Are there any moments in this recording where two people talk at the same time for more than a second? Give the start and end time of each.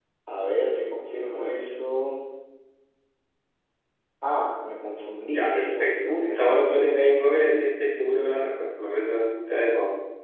5.3-7.1

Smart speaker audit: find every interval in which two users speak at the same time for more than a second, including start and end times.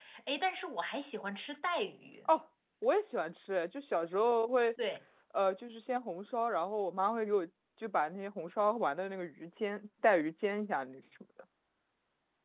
none

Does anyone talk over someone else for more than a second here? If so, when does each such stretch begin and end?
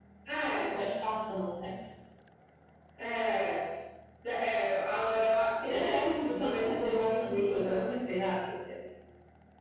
5.7-7.9

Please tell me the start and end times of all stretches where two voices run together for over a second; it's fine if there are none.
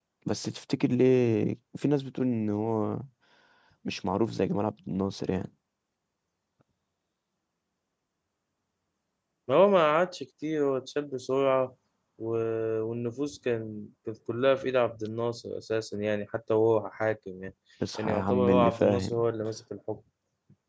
18.0-19.2

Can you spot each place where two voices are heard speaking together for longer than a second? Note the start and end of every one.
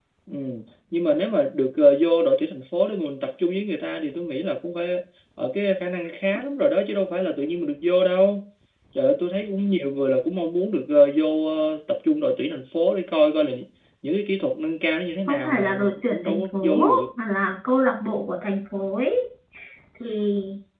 15.3-17.0

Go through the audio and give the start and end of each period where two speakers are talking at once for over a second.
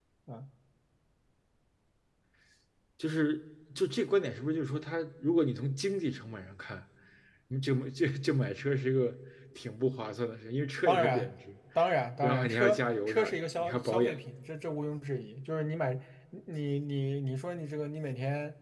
12.2-14.2

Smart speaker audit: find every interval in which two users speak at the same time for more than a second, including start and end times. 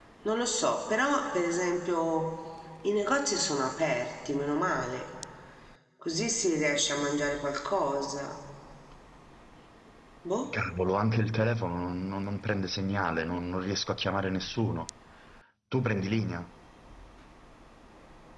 none

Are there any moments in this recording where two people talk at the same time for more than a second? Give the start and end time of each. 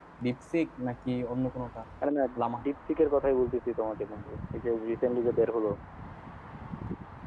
none

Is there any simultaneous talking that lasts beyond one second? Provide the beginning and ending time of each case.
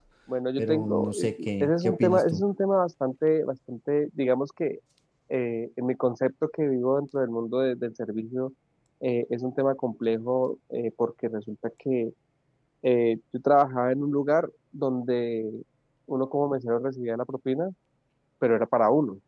0.6-2.4

